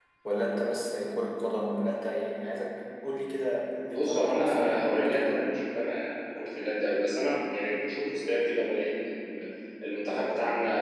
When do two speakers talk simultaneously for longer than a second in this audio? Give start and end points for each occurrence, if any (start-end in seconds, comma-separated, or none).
3.9-5.5